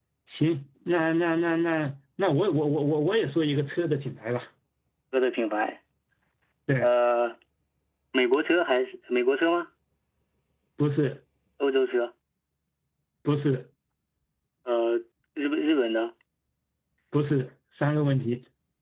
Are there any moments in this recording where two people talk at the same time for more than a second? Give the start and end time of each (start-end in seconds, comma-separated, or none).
none